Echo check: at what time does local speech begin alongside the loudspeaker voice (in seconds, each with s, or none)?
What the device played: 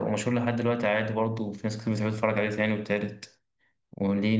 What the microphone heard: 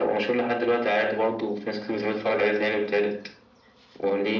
none